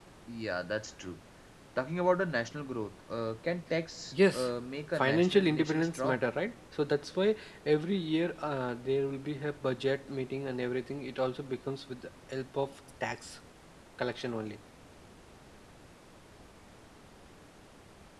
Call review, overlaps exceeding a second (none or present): present